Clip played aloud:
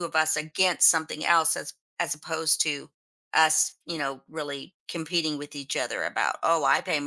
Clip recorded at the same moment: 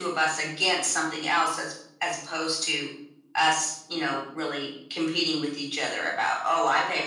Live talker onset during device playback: none

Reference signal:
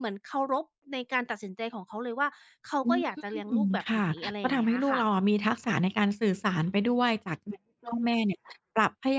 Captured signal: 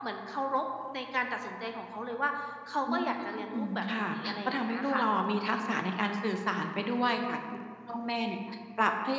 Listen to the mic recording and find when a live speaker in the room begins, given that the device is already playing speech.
none

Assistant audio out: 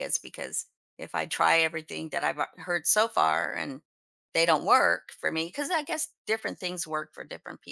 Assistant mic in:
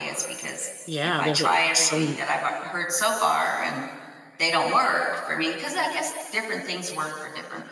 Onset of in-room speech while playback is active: 0.8 s

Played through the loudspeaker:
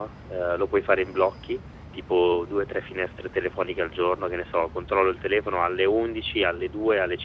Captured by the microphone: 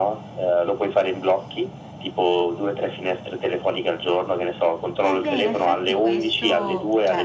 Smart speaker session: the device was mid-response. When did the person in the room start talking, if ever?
5.0 s

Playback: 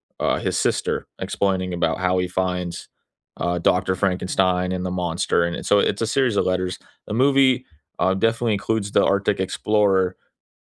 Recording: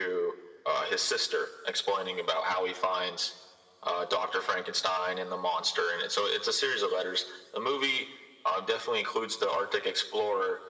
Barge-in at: none

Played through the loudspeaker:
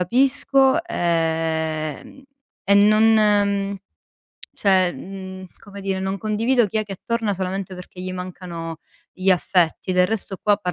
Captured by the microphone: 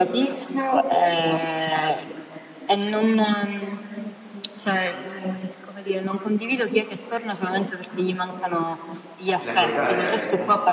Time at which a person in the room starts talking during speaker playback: 9.4 s

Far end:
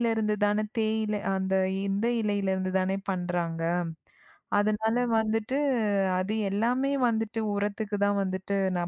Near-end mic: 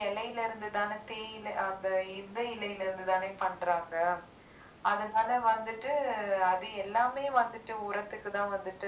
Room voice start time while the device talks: none

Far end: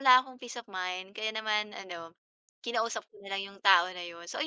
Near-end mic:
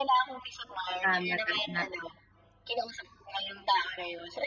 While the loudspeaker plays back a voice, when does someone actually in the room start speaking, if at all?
1.0 s

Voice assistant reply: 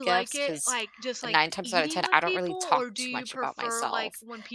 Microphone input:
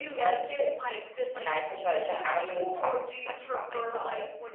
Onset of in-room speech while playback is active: none

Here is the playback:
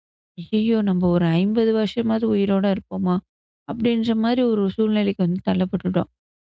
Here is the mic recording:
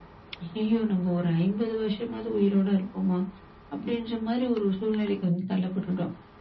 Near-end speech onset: none

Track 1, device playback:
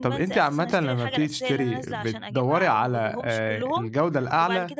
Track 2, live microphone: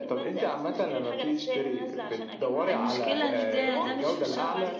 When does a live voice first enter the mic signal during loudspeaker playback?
2.7 s

